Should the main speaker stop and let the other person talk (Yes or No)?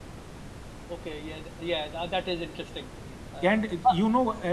Yes